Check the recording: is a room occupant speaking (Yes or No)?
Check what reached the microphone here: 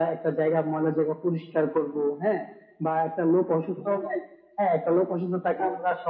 No